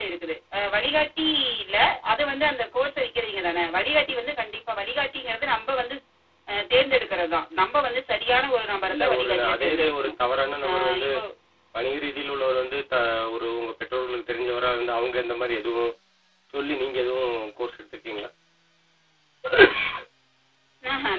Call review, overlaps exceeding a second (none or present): present